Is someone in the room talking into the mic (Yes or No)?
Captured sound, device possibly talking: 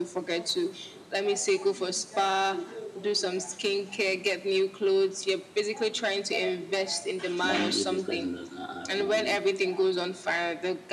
Yes